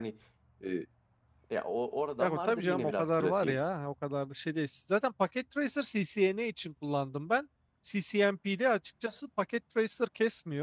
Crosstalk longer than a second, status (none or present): present